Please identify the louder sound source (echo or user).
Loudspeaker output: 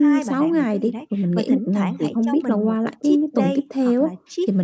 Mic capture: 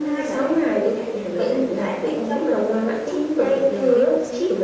echo